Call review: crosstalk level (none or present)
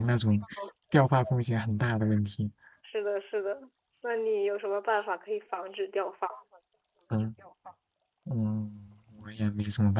none